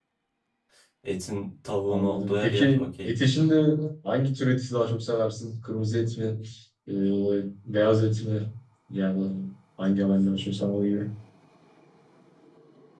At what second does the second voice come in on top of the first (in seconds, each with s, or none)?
1.9 s